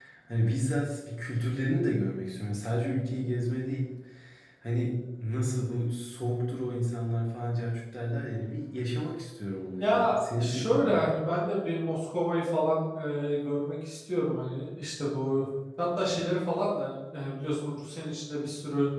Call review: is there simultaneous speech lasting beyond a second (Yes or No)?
Yes